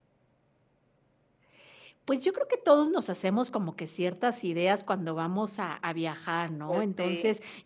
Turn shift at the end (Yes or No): No